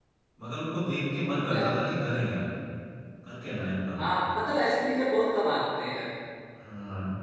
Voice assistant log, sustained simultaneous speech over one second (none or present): none